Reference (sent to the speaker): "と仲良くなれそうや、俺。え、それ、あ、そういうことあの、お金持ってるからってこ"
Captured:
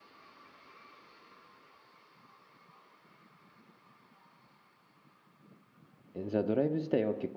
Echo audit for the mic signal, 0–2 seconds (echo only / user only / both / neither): neither